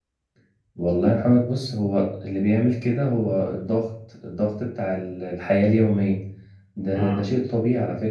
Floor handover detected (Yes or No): No